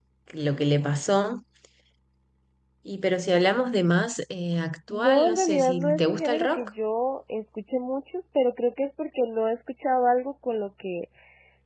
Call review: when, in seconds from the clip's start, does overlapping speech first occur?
4.9 s

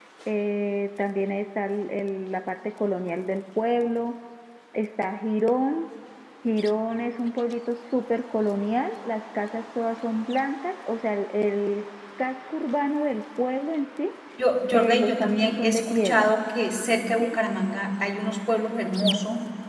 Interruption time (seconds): 14.7 s

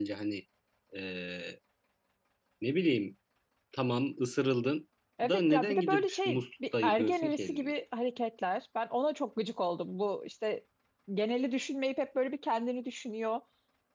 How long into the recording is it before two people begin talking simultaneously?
5.2 s

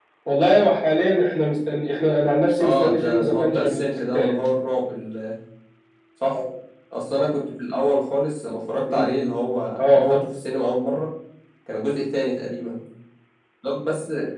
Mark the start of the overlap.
2.6 s

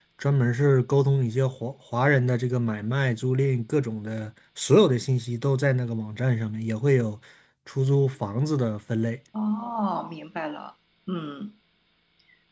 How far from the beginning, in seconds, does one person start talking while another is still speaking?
none

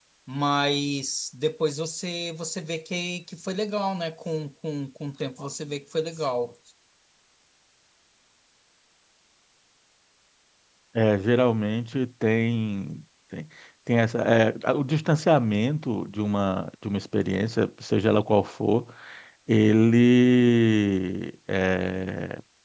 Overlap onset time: none

